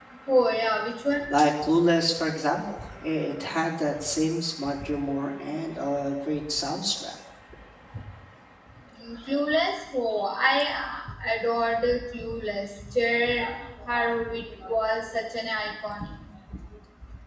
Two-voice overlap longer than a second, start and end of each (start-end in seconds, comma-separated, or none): none